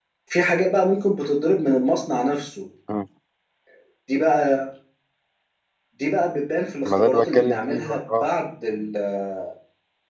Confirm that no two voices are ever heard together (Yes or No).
No